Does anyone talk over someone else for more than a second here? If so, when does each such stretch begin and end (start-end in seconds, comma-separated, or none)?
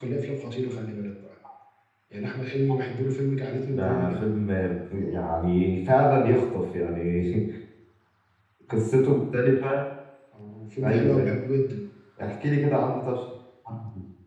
none